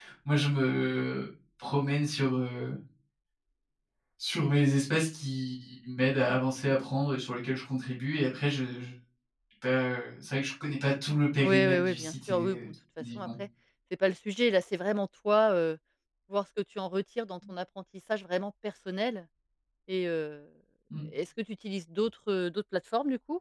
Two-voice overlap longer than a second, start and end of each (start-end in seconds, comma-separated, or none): 11.4-12.7